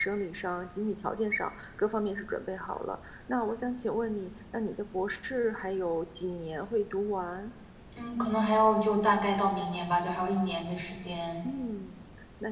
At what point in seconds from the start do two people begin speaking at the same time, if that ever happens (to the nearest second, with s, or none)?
none